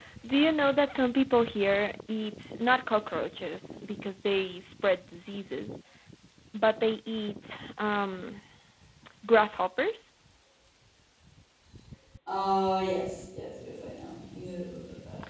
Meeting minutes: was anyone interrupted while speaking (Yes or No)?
No